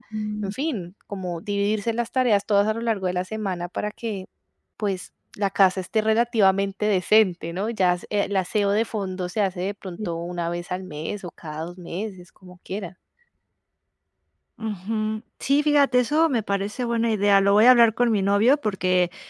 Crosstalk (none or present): none